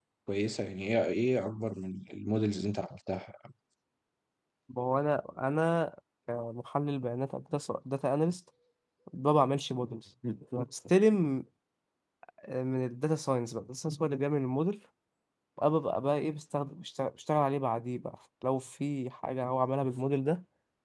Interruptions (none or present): none